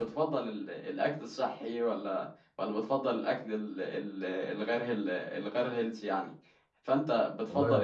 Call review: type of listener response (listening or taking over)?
taking over